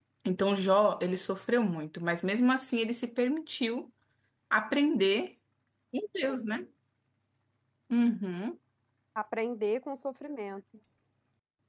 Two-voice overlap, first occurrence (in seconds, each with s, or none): none